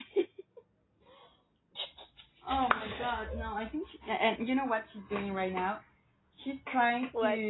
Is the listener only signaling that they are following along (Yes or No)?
Yes